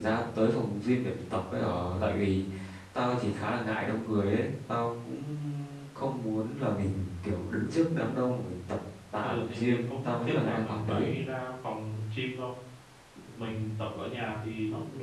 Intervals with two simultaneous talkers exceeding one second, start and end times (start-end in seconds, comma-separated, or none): 9.2-11.1